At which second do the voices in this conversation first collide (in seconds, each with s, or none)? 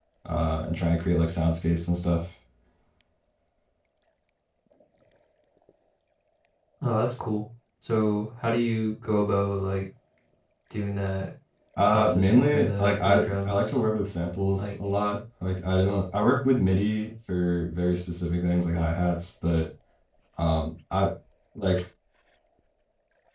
11.9 s